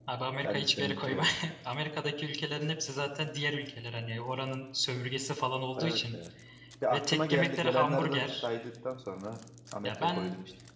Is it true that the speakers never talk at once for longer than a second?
No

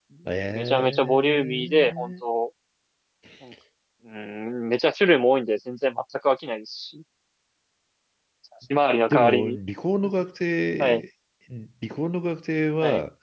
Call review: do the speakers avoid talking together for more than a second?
No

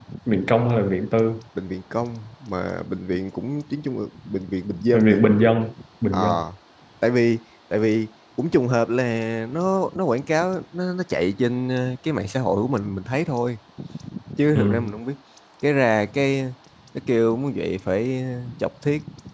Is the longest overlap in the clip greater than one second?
No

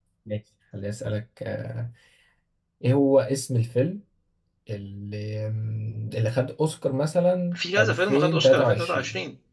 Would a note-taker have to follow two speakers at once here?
Yes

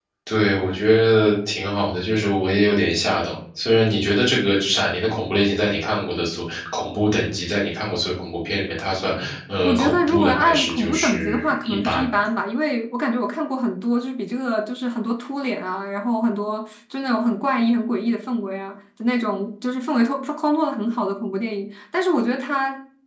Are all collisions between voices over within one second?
No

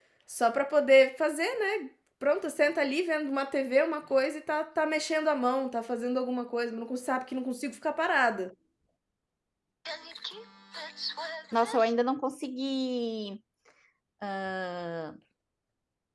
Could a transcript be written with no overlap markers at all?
Yes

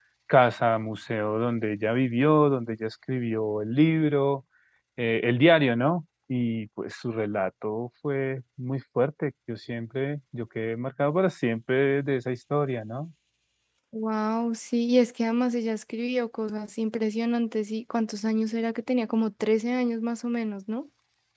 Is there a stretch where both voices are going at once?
No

